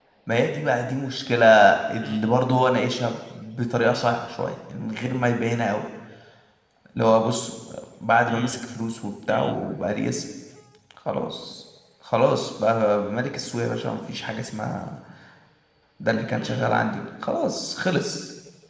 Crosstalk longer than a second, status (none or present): none